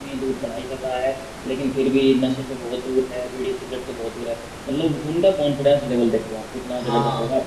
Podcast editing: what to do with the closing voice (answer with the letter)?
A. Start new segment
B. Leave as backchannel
A